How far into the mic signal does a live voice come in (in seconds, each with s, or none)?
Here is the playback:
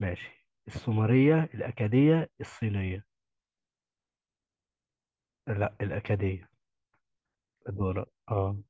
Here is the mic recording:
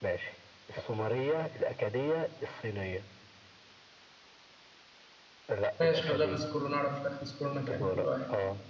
5.8 s